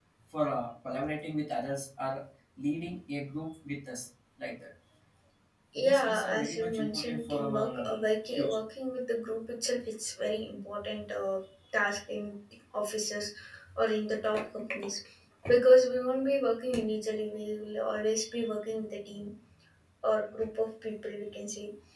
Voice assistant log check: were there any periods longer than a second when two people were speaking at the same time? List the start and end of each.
5.8-7.9

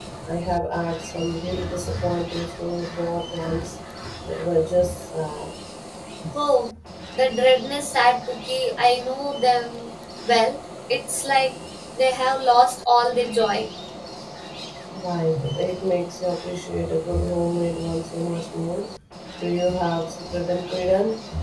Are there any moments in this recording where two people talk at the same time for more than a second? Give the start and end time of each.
none

